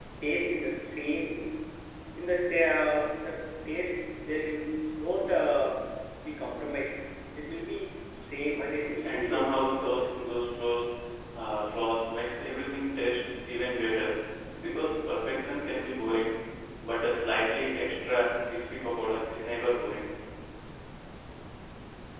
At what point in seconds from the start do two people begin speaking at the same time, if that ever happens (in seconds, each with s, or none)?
8.9 s